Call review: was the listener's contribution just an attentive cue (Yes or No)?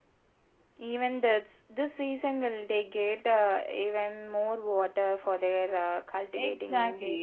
No